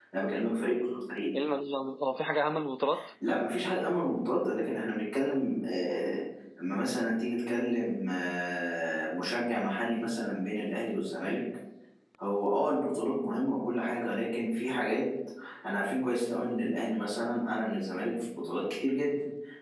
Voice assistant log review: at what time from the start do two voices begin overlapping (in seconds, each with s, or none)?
none